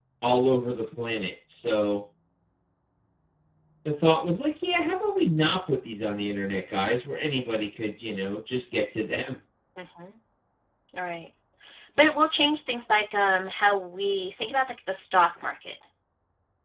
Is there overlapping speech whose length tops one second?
No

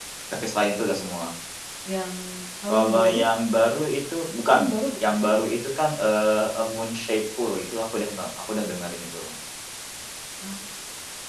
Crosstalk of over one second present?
No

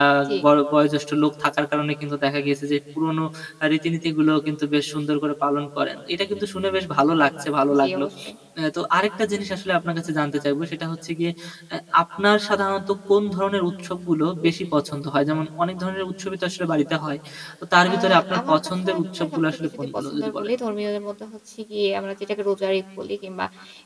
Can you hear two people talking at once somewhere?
Yes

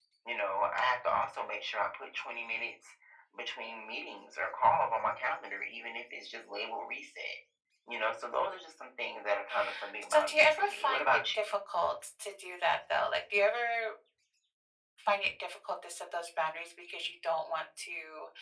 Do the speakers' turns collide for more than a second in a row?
Yes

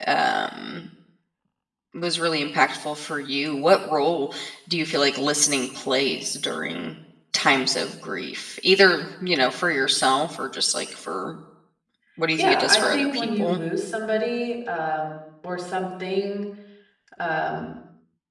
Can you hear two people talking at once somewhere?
Yes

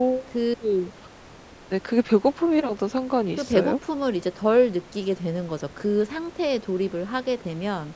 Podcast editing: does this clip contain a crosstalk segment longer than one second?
No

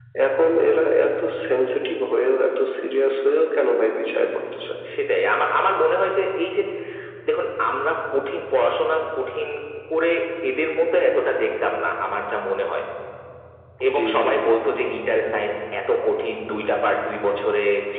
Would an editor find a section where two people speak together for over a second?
No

